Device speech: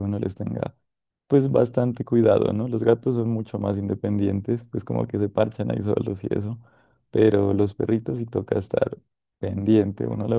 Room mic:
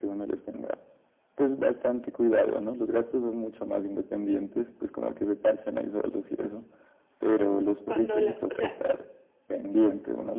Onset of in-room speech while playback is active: 8 s

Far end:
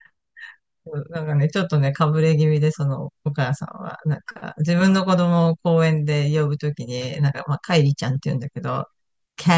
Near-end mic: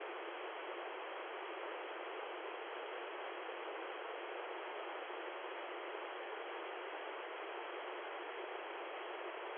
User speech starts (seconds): none

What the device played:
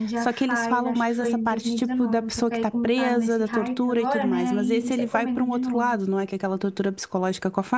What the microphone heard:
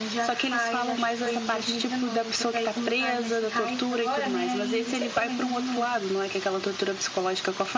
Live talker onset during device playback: none

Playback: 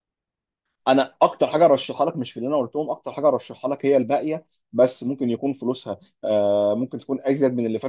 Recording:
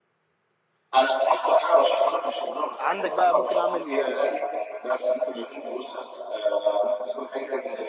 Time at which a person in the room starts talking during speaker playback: 3 s

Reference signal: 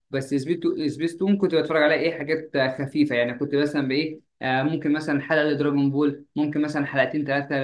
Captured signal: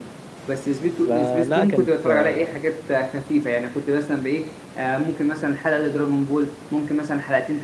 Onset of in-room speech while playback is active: 1 s

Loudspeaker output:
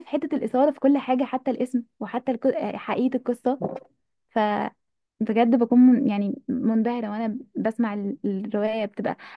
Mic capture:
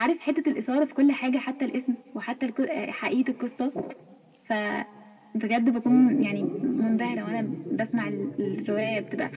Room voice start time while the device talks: 6 s

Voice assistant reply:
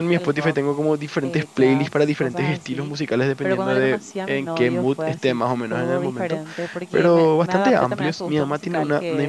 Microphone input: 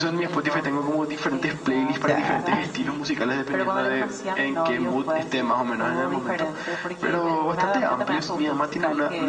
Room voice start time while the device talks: 2 s

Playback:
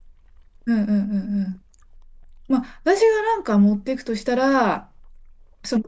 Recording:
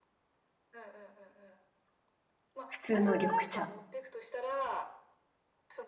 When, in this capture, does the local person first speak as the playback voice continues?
3 s

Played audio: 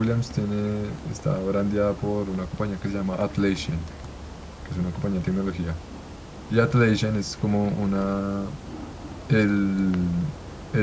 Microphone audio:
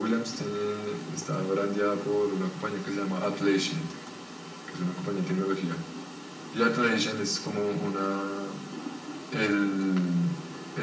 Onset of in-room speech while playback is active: none

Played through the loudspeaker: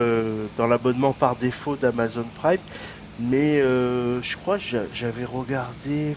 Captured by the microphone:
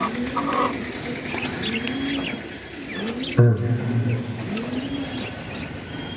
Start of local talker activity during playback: 3 s

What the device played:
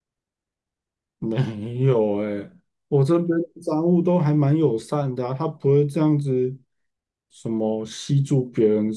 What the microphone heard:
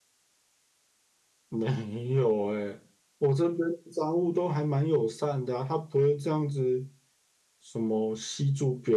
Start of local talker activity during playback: none

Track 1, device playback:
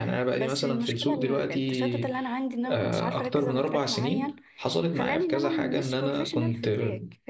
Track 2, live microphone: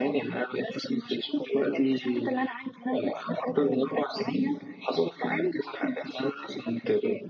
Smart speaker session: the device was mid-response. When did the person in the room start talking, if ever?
none

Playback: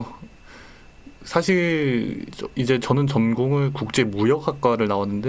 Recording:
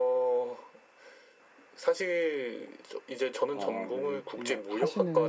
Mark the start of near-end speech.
4 s

